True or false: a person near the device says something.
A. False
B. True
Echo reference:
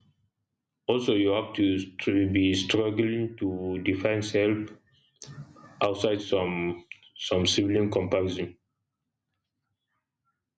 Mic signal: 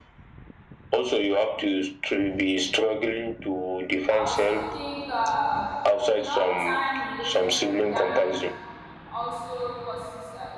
B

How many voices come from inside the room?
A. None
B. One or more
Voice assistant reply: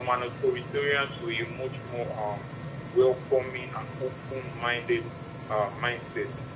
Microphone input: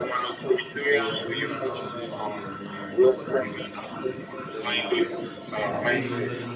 B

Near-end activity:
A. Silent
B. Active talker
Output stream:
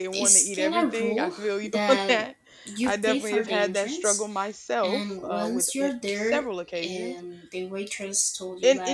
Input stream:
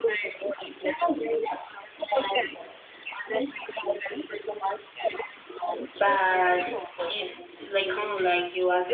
B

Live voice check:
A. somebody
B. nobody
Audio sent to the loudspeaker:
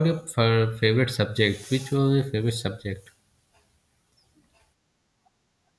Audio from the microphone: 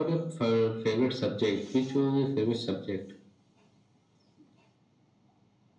B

